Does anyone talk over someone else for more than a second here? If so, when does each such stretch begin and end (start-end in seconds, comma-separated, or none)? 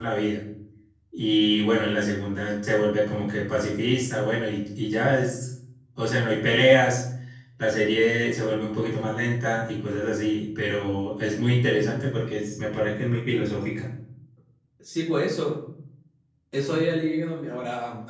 none